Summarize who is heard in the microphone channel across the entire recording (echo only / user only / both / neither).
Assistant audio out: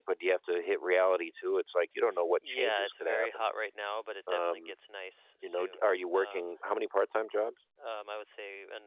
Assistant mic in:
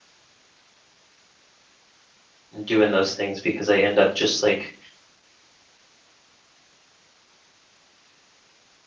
user only